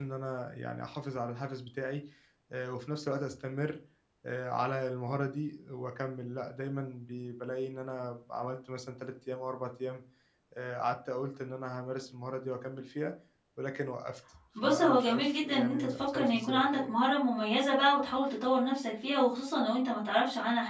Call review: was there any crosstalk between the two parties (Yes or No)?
Yes